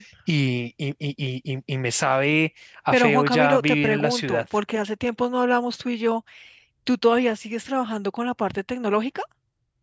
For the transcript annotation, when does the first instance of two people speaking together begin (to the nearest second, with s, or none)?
3 s